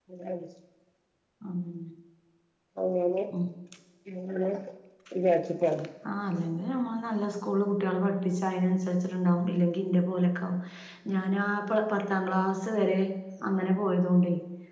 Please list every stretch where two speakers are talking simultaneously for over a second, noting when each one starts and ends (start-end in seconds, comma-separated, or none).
none